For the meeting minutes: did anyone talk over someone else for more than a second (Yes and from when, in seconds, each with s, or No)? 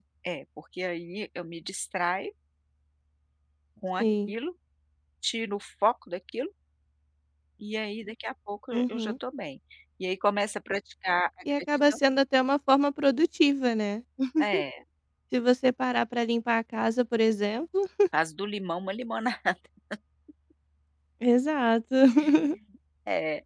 No